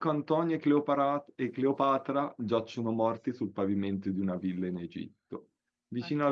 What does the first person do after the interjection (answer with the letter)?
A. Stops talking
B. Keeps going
B